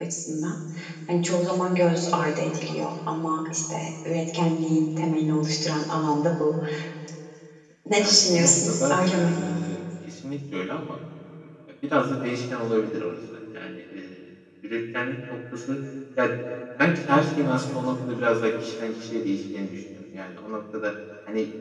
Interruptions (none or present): present